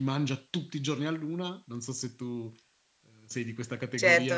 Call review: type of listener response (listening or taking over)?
taking over